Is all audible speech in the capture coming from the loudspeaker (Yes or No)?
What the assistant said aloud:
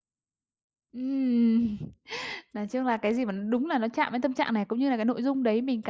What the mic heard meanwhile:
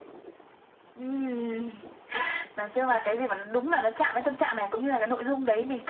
Yes